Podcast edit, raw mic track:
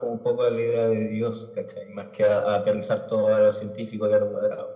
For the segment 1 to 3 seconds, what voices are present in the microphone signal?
echo only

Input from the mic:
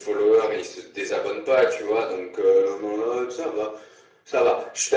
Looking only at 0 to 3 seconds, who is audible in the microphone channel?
echo only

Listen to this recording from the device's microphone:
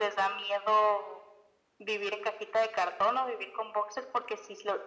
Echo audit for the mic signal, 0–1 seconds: echo only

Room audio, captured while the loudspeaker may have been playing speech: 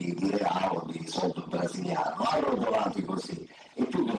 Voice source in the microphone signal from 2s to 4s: echo only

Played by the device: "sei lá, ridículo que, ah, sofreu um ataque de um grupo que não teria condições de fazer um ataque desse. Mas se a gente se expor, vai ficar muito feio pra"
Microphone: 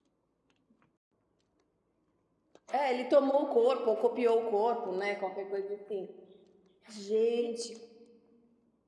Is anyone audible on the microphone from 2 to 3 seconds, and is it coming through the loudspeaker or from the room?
user only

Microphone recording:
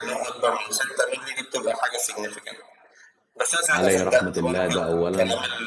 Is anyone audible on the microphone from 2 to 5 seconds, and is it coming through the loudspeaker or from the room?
both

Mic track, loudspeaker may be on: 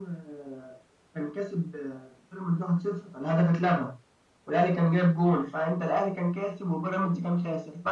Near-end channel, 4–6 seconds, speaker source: echo only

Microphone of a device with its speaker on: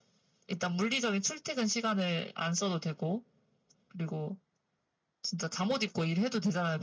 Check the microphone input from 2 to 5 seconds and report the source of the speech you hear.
echo only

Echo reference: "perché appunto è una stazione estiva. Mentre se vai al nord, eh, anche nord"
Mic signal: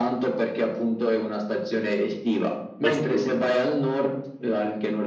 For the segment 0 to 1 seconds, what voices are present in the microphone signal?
echo only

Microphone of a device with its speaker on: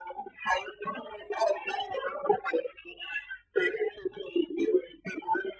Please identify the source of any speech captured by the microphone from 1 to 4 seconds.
echo only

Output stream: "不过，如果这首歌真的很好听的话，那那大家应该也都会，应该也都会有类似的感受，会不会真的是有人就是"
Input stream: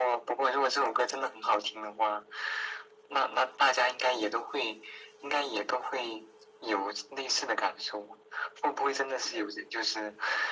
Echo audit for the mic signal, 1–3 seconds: echo only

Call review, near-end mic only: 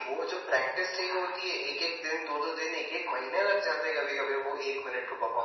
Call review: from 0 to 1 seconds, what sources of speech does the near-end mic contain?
echo only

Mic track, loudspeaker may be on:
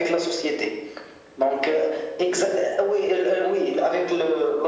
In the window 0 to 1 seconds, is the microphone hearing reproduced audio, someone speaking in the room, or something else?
echo only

